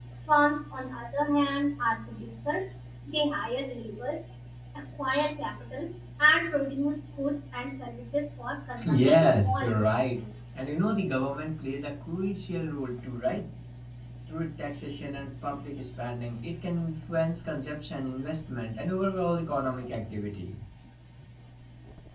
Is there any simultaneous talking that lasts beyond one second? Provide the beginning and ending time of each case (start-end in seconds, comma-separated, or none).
8.8-10.2